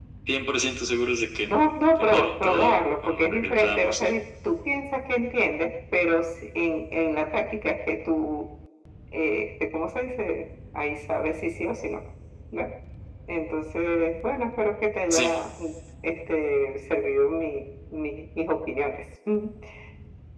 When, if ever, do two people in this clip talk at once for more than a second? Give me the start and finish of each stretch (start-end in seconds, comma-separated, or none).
1.4-4.1